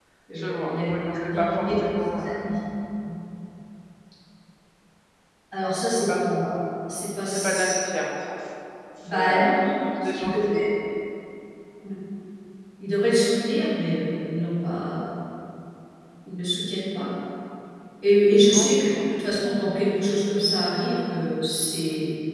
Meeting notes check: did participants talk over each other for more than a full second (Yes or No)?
Yes